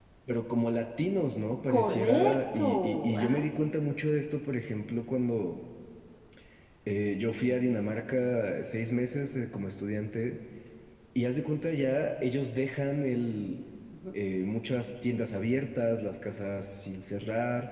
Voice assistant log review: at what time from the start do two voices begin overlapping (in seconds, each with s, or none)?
1.7 s